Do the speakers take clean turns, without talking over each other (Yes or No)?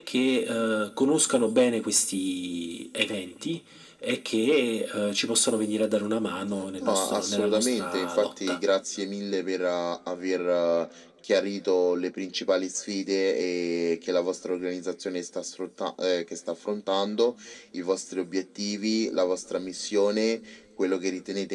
No